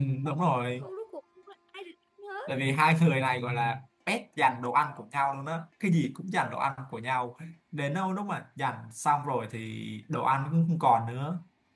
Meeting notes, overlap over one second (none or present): none